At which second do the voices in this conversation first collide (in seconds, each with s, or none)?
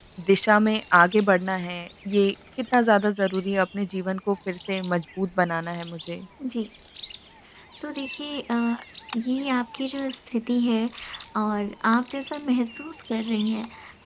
none